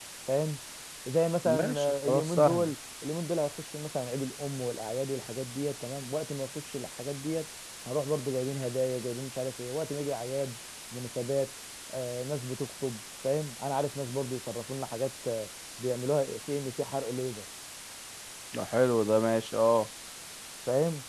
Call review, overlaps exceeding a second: present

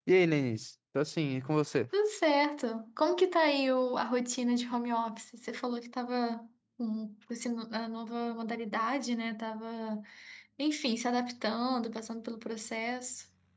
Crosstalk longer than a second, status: none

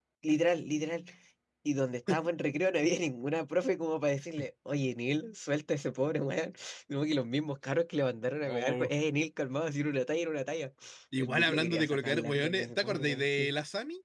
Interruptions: present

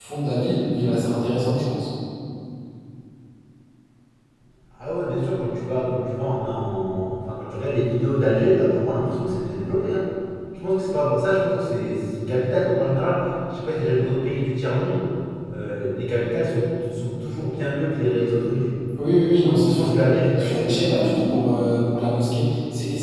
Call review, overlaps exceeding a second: none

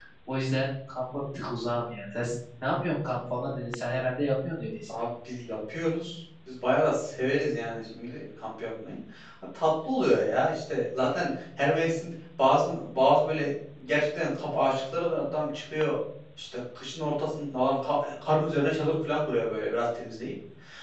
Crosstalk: none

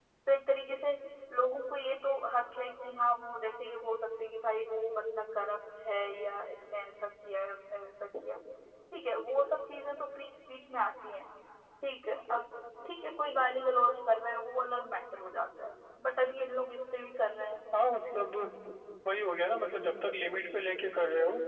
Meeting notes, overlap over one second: none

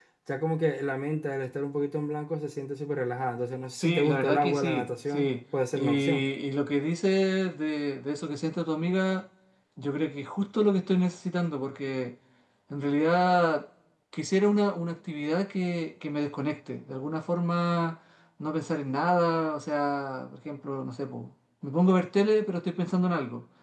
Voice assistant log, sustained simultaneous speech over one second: present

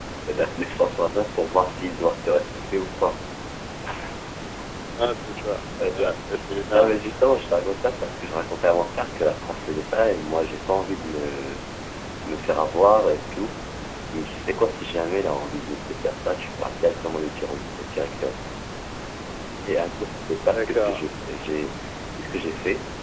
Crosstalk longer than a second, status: none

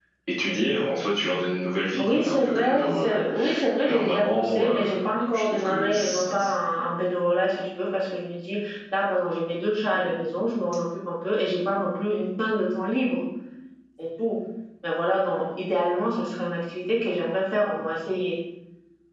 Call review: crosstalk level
present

